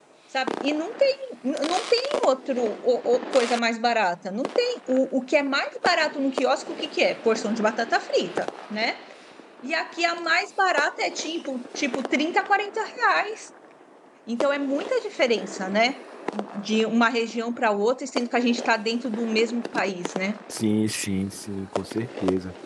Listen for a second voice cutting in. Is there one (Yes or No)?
No